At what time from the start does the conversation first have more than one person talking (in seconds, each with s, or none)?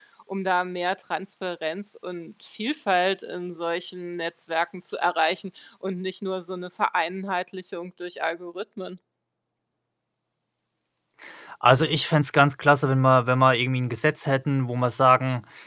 none